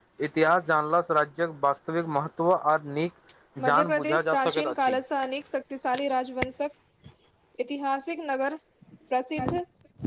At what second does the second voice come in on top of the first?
3.7 s

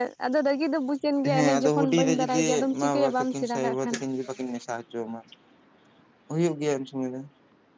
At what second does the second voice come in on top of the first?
1.2 s

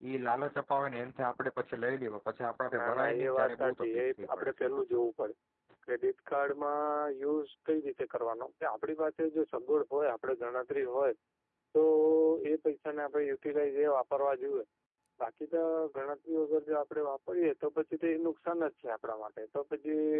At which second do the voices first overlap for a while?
2.7 s

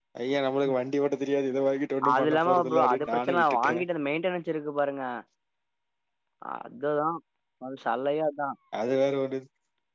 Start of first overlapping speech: 2.0 s

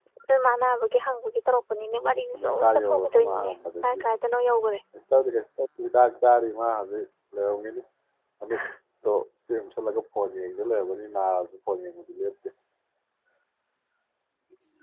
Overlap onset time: 2.3 s

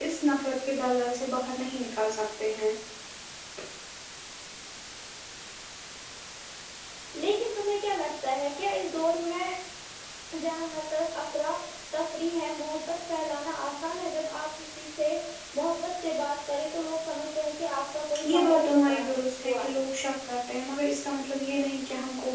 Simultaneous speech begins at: 18.2 s

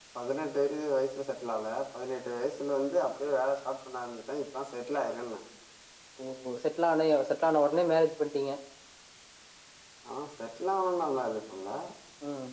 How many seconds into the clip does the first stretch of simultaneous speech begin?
none

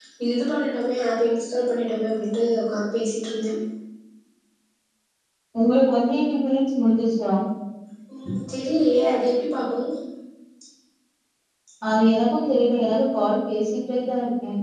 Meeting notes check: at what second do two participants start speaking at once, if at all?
none

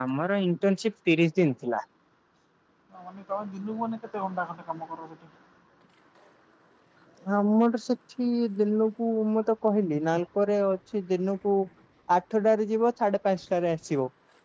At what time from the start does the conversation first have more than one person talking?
none

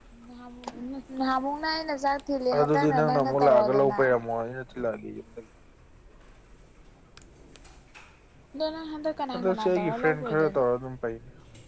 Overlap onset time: 2.6 s

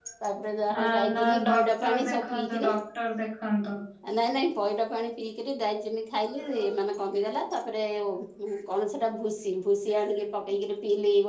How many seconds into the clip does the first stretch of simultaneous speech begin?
0.7 s

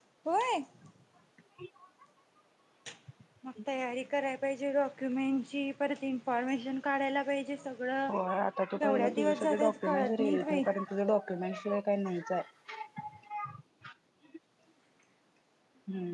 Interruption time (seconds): 8.8 s

